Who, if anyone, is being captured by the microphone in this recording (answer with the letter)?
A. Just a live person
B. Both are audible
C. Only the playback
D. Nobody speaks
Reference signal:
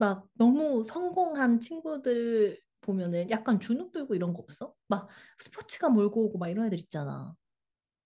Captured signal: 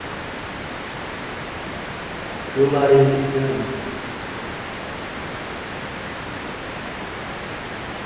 A